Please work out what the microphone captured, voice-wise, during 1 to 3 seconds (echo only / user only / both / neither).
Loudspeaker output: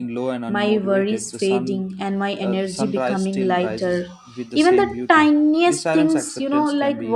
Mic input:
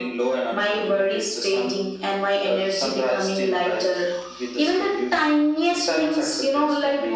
echo only